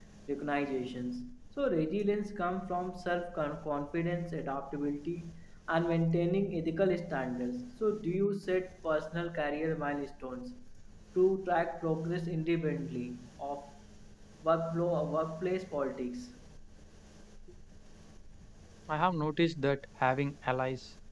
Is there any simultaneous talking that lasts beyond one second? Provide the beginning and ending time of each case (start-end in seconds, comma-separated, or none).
none